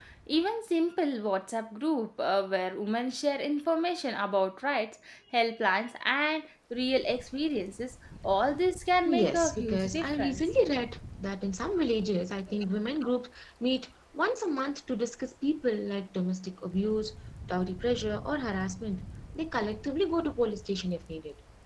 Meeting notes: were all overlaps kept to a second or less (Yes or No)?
No